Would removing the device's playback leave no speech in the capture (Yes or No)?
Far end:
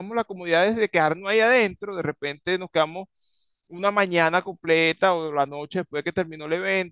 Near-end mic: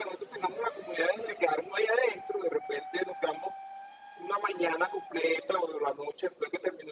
Yes